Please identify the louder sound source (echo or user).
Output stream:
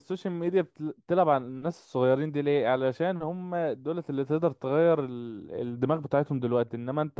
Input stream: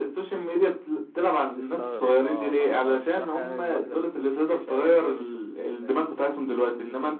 echo